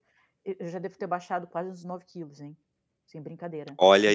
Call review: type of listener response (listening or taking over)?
taking over